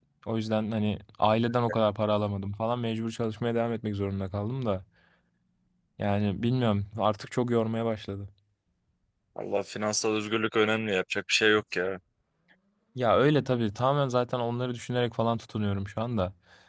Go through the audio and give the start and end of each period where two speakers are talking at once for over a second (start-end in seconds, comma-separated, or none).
none